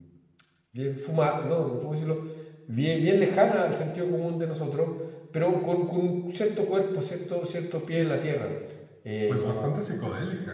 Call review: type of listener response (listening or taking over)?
taking over